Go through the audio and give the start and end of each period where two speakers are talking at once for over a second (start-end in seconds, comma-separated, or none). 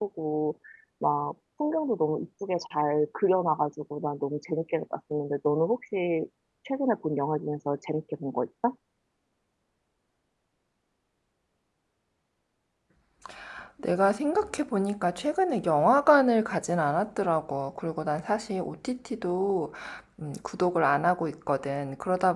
none